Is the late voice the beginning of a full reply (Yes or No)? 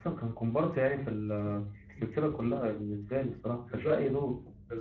Yes